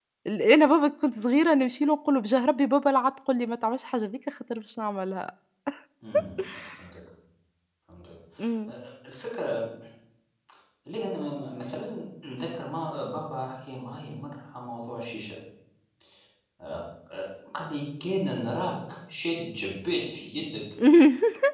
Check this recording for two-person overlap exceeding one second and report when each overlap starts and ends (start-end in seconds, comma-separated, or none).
none